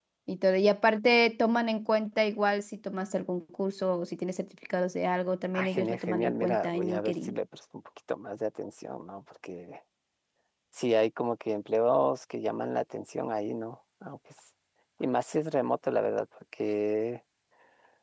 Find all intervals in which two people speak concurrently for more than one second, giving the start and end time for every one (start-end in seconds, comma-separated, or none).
5.5-7.3